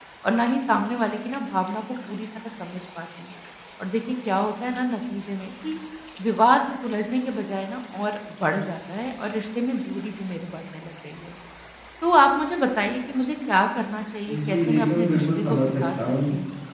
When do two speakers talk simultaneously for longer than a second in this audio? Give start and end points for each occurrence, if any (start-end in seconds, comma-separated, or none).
14.3-16.0